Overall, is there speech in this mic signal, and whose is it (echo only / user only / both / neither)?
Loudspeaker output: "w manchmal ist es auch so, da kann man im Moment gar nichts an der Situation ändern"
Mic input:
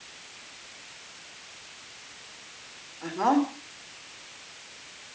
user only